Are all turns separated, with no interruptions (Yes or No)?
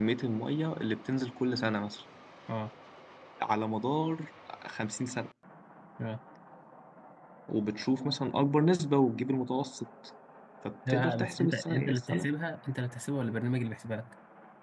No